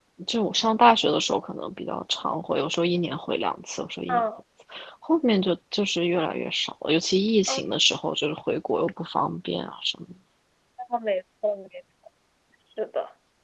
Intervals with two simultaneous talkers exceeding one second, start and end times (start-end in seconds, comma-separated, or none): none